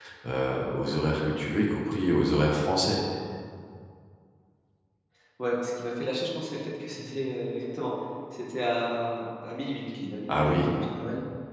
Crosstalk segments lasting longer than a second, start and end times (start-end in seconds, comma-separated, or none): none